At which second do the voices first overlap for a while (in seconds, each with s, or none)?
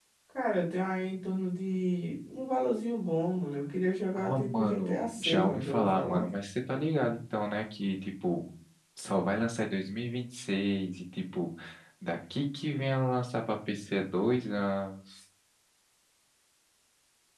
4.2 s